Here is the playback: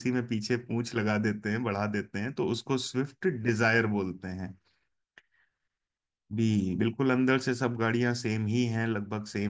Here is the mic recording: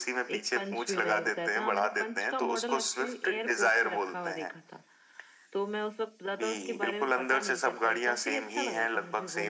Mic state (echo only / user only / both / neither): both